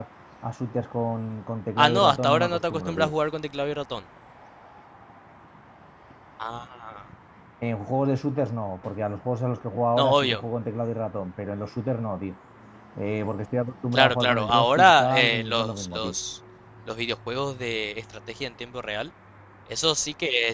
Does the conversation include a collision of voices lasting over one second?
Yes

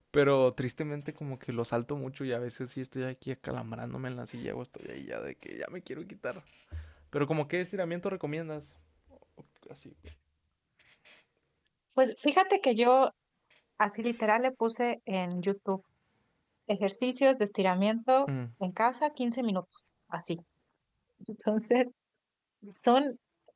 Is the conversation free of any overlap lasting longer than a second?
Yes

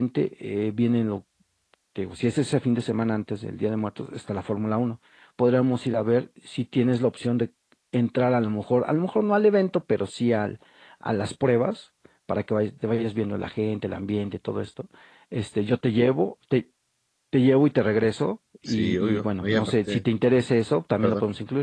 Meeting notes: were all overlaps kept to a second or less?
No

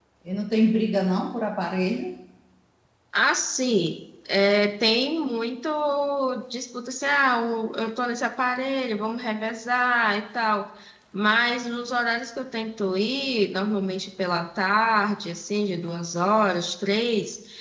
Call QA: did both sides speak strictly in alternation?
Yes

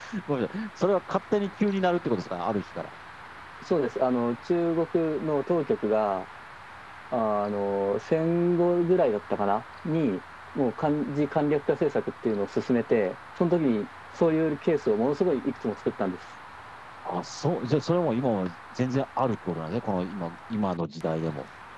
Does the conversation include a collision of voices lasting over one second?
No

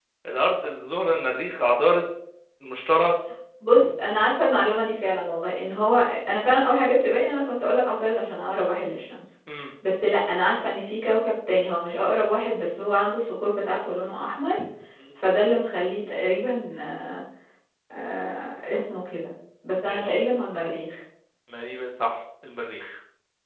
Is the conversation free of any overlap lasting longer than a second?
Yes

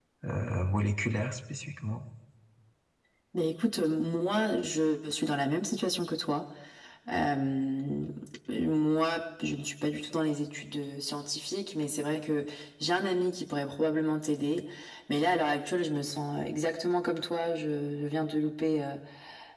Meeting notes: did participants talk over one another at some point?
No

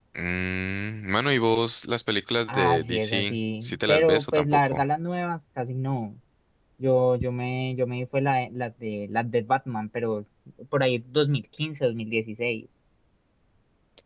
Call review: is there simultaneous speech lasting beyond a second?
Yes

